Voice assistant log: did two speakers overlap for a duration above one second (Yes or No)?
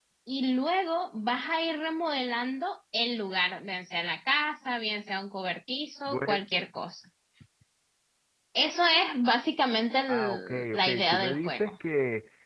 Yes